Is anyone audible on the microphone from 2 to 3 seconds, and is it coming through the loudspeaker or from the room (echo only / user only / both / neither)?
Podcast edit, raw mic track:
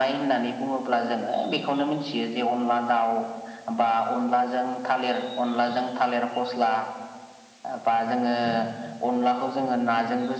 echo only